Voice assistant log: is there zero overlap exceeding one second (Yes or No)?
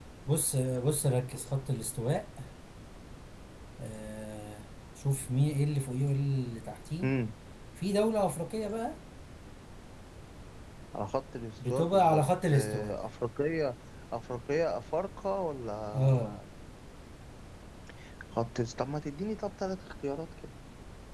No